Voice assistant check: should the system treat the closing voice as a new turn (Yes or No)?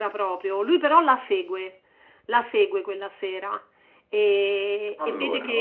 No